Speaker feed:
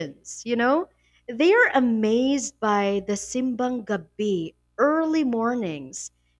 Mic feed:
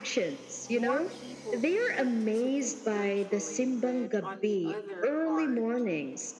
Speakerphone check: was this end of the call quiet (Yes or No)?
No